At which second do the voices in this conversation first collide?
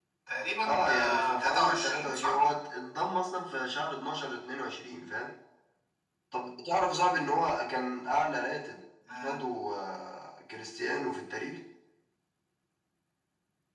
0.6 s

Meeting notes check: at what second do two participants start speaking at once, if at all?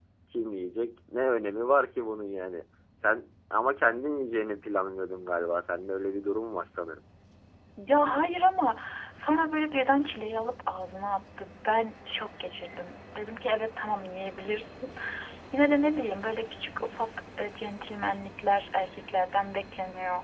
none

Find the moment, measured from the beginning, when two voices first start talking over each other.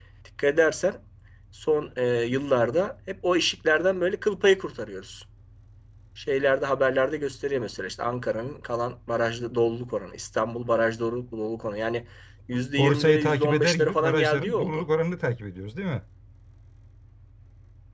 12.8 s

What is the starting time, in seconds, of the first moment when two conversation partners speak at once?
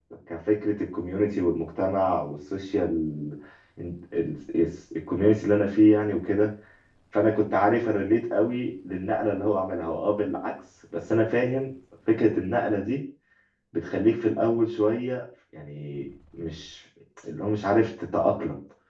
none

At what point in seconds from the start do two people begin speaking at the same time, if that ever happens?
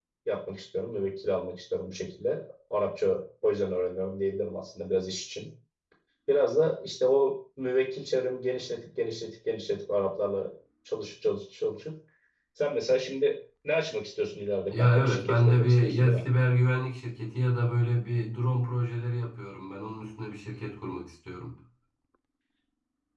14.7 s

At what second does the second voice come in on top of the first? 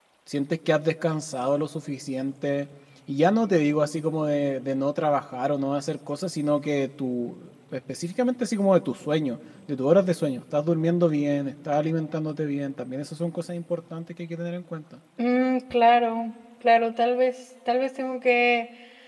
none

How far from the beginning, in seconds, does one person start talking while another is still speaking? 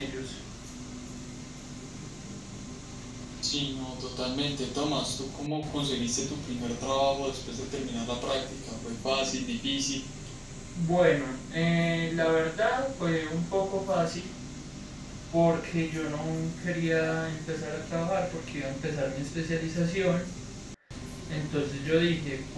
none

